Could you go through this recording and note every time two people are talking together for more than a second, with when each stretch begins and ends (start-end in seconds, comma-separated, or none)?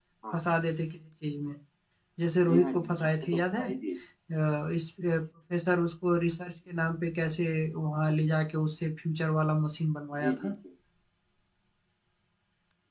2.5-3.7